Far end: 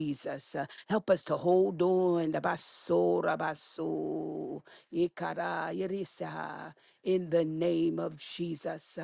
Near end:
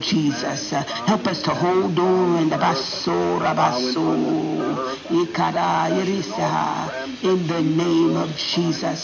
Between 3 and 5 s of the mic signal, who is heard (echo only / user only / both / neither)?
both